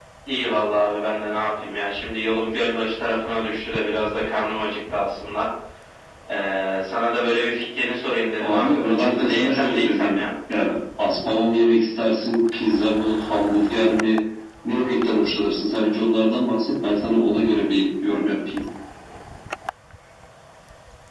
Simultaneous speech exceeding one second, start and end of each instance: 8.4-10.2

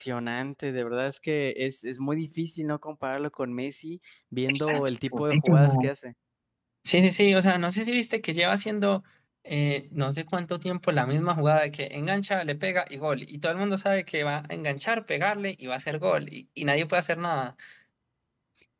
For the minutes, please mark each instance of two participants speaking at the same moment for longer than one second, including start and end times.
4.5-5.9

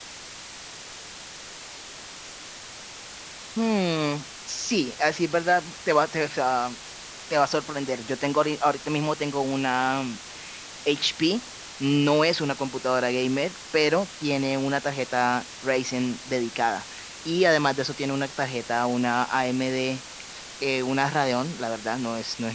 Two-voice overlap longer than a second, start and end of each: none

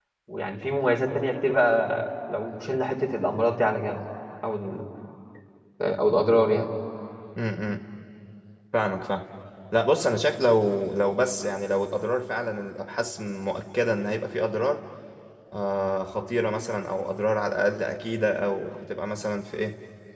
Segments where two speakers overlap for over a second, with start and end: none

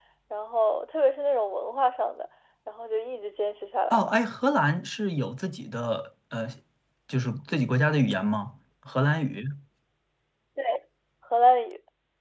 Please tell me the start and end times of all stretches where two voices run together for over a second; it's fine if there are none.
none

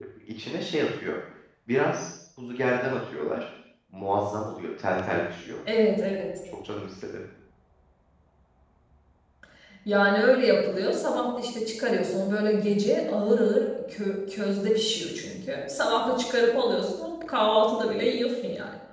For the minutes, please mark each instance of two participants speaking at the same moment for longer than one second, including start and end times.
none

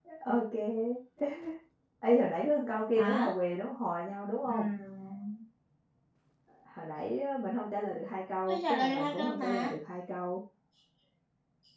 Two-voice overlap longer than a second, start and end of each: 8.5-9.7

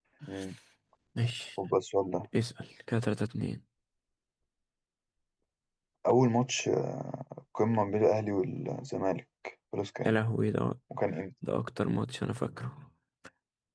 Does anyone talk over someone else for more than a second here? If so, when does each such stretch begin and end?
none

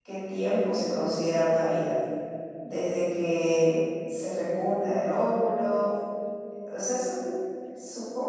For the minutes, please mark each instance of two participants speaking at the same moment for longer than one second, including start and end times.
none

